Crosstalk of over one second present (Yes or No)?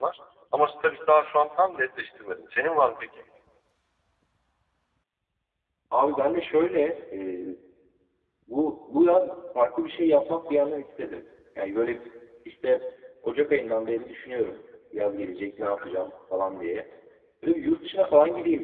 No